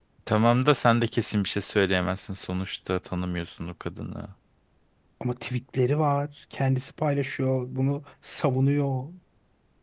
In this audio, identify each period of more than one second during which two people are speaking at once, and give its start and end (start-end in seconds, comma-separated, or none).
none